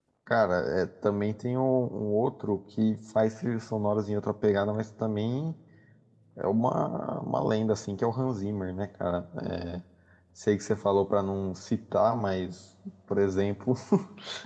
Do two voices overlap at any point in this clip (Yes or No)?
No